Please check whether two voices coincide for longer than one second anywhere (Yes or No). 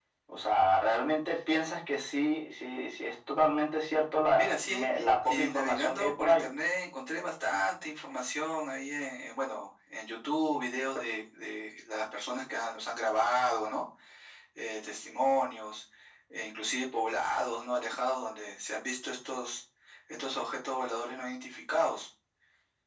Yes